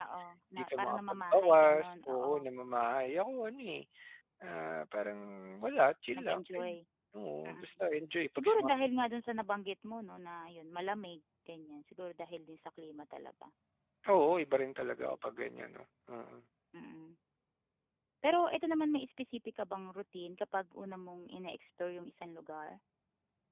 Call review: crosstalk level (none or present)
present